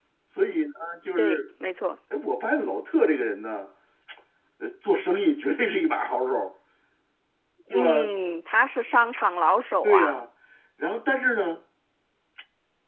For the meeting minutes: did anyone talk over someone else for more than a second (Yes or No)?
No